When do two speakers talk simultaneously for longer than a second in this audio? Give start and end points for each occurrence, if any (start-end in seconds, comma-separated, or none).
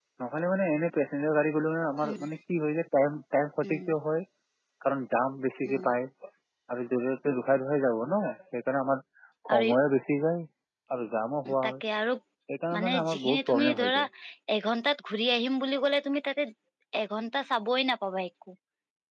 12.7-14.0